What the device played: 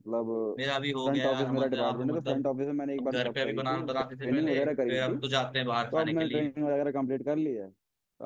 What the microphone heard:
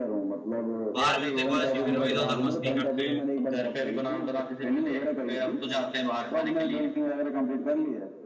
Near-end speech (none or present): present